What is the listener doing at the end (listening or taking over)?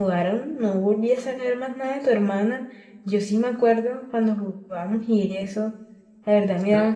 listening